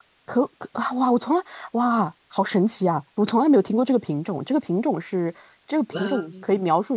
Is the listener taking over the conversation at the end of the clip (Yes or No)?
No